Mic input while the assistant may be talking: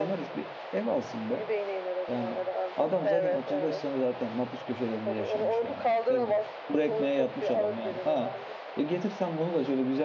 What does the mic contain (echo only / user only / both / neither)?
both